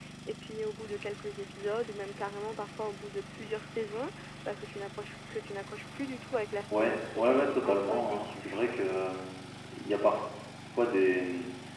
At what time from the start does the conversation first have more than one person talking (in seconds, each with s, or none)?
6.7 s